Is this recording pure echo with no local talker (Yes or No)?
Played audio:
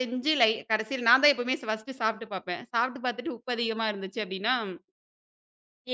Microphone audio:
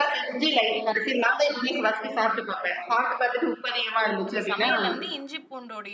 No